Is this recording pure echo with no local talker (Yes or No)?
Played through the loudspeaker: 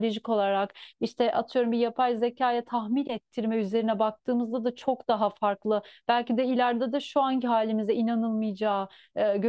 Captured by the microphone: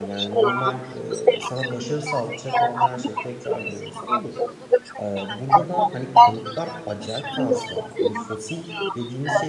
No